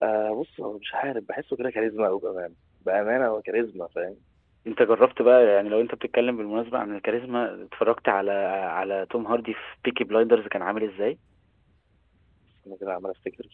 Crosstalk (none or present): none